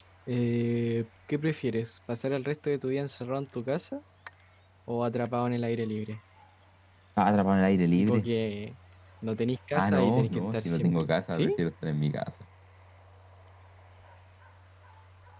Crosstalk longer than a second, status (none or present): present